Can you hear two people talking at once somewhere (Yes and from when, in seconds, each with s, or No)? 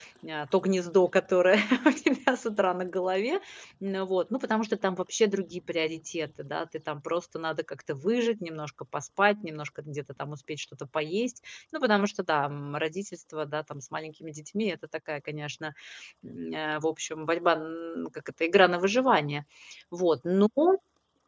No